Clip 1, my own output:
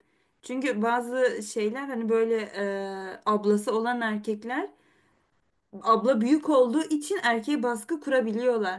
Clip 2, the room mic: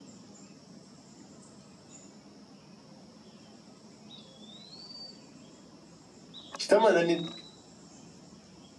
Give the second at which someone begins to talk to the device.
7 s

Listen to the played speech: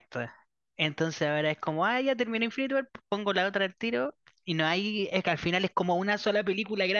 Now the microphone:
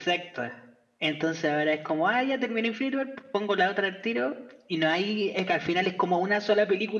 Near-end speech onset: none

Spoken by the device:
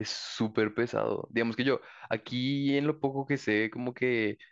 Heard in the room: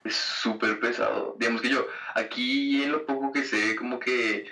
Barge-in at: none

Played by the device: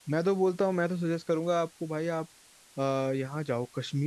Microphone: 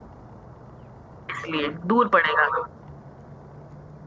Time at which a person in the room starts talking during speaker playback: 1 s

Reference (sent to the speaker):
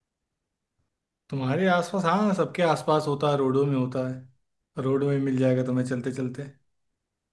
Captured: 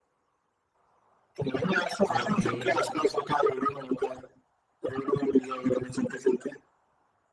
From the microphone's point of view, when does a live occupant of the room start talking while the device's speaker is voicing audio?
2 s

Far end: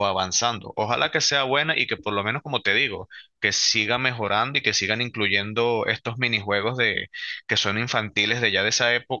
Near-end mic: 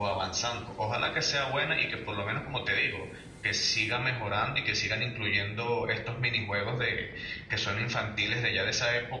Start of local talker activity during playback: none

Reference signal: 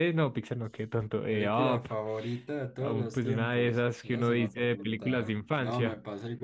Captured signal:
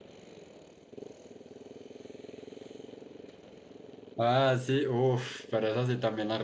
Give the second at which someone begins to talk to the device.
4 s

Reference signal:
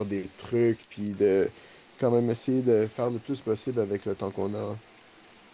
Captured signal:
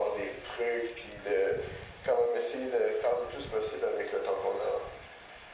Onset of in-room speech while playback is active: none

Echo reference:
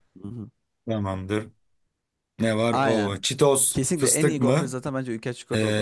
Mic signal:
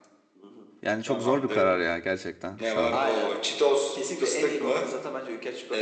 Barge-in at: 1 s

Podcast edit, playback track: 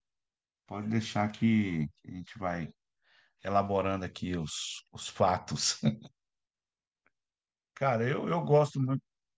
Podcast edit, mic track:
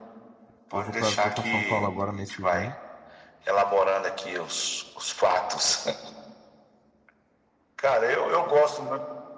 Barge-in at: 1 s

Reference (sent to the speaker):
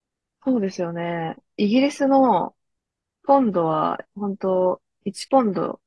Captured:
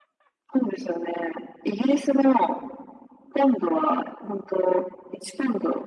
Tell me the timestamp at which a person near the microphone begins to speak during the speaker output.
none

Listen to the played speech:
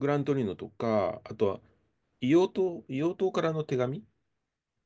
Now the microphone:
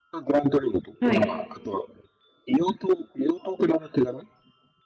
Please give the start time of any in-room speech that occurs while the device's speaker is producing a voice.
1 s

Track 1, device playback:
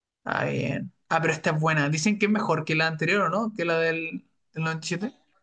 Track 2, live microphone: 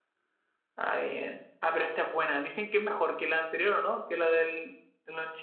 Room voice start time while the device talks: none

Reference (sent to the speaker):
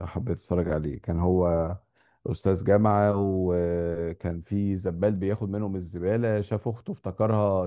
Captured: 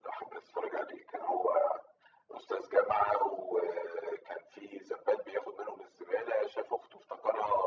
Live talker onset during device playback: none

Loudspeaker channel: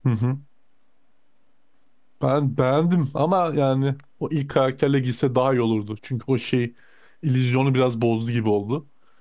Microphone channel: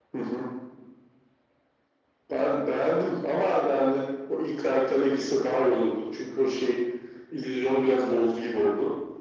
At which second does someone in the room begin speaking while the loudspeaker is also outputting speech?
none

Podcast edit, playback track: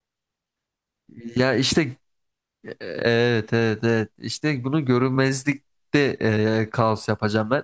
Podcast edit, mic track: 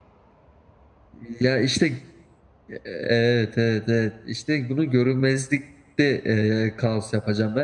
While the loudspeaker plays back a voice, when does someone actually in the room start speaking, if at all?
none

